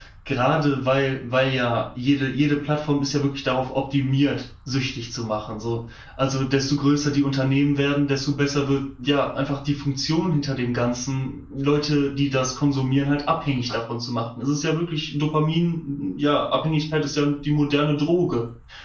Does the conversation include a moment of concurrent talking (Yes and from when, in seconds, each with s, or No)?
No